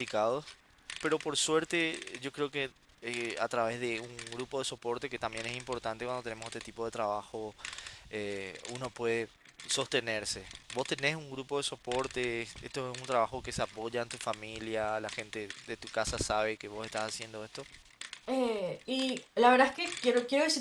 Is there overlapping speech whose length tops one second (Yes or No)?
No